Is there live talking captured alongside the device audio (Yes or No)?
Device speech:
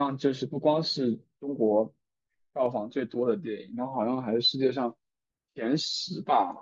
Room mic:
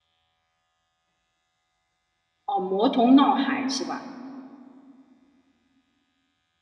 Yes